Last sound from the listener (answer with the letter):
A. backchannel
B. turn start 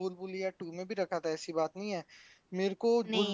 A